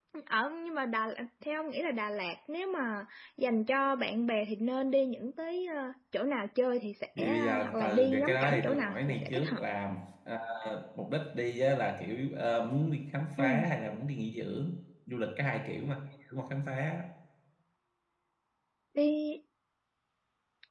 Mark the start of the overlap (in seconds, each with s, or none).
7.2 s